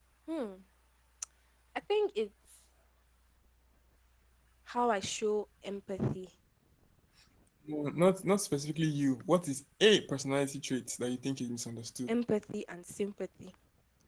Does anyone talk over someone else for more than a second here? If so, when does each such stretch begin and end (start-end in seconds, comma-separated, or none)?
none